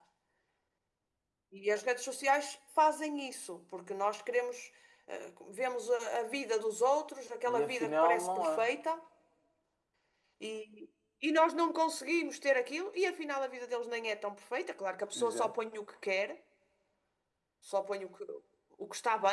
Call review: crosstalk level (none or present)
present